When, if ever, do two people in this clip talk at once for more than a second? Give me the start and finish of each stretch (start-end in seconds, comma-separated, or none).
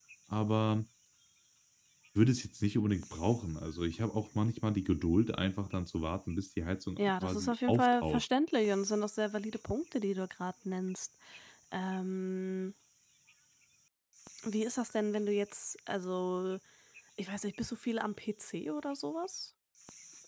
7.0-8.2